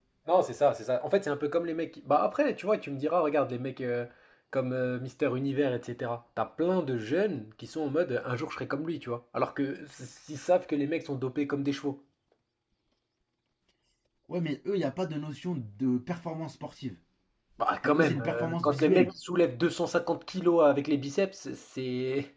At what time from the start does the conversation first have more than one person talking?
18 s

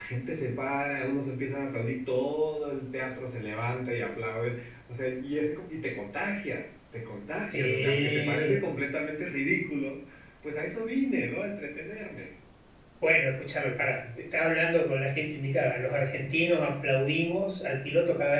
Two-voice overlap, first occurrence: 7 s

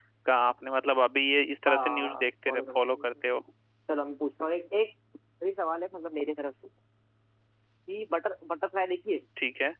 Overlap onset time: 2 s

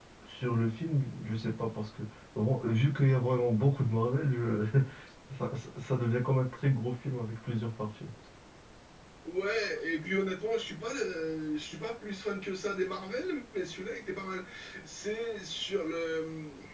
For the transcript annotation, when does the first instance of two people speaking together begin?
none

